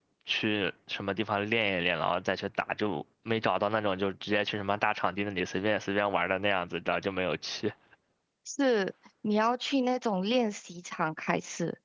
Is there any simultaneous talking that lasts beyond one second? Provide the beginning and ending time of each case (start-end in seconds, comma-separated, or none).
none